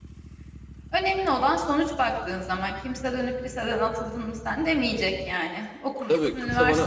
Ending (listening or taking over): taking over